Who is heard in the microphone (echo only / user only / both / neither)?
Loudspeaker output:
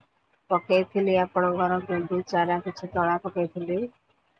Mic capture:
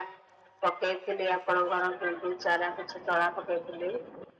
echo only